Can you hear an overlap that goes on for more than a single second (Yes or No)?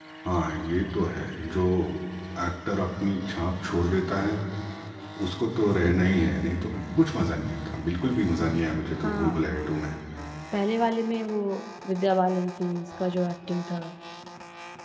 No